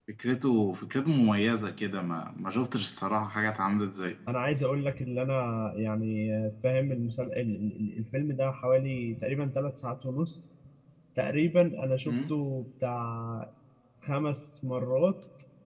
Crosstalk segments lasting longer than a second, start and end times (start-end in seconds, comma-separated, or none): none